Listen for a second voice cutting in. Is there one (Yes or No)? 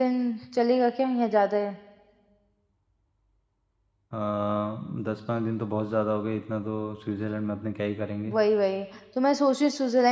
No